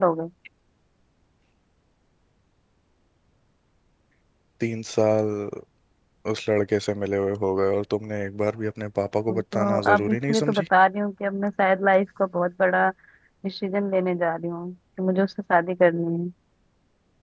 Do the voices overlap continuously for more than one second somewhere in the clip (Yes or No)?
Yes